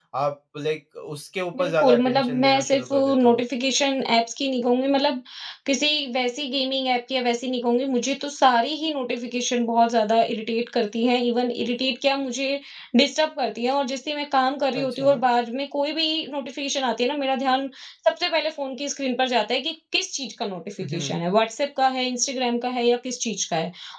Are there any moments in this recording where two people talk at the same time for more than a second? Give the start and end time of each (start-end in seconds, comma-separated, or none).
1.6-3.4